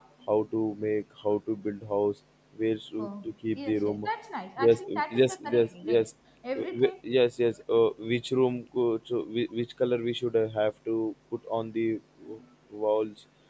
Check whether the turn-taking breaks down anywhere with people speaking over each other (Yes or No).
Yes